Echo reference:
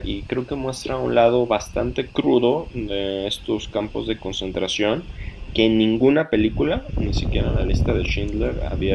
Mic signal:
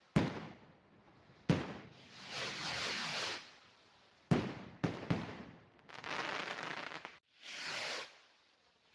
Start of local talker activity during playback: none

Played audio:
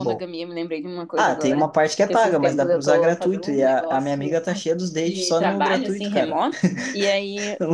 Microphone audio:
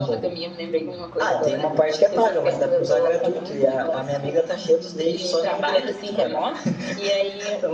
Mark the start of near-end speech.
none

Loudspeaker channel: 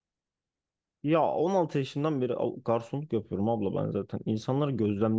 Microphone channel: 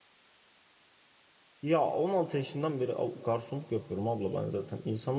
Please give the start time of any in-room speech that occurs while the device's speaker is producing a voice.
none

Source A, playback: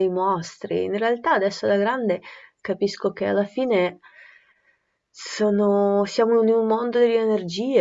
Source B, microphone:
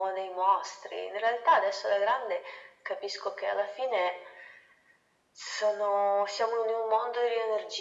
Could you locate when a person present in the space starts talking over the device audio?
none

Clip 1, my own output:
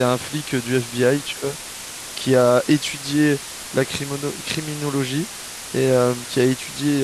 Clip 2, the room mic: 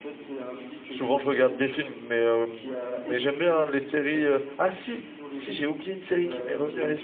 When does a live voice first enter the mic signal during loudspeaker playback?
1 s

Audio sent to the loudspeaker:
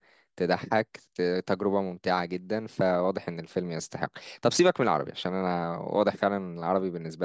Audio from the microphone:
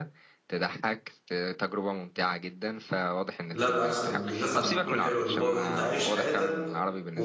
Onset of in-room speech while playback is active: 4 s

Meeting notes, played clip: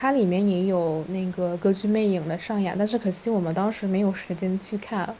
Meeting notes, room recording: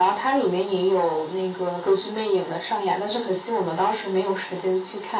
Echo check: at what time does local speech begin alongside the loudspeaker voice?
none

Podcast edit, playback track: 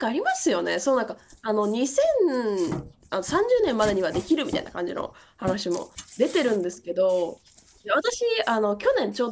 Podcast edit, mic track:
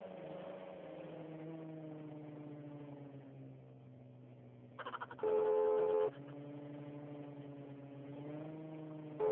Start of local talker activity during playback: none

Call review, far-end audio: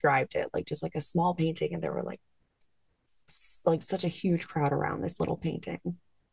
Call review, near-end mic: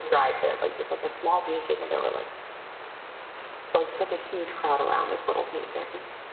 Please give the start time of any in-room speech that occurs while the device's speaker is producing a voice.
none

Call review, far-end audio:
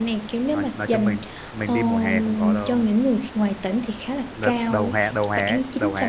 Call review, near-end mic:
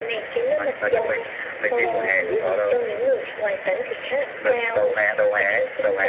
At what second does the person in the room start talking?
1 s

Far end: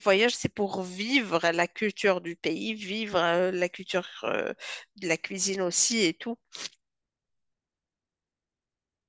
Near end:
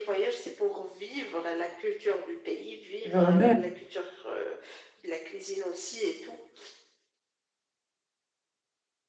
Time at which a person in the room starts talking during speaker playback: 3 s

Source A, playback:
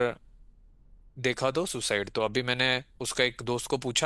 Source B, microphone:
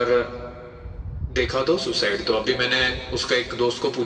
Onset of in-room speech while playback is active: none

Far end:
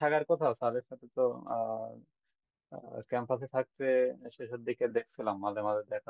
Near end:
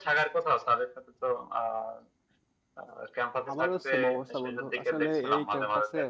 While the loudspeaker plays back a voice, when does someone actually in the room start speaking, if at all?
4 s

